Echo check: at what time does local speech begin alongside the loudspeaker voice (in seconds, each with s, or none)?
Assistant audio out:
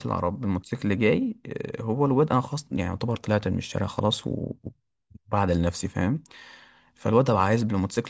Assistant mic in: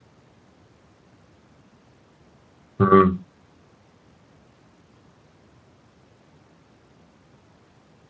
2.8 s